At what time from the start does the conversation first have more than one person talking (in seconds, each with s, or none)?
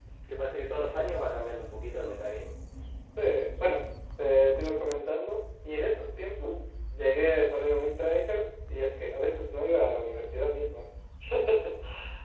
none